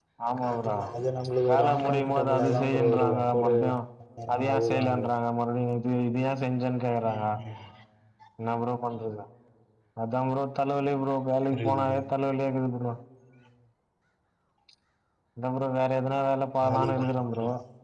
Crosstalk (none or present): present